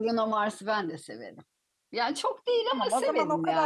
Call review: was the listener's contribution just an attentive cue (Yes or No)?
No